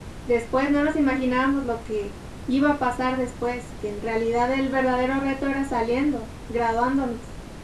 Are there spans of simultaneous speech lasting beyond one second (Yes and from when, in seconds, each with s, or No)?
No